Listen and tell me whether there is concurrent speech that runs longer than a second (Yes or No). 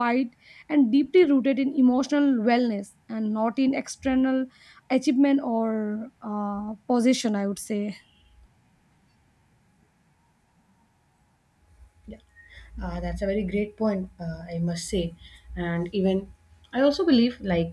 No